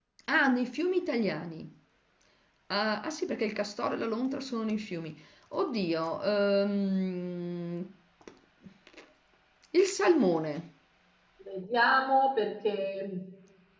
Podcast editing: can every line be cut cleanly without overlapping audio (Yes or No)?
Yes